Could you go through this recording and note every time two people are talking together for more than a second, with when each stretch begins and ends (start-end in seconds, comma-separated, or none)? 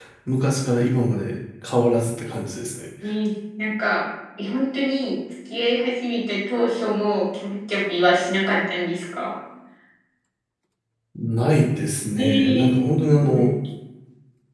12.2-13.5